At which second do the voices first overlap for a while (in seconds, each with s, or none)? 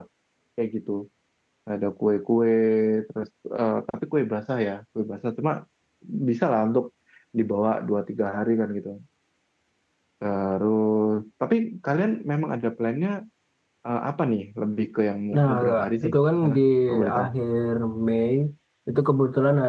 15.3 s